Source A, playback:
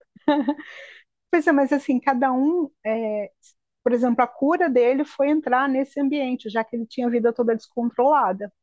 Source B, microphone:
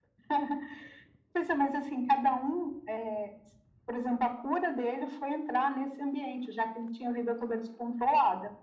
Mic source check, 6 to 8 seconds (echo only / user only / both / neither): echo only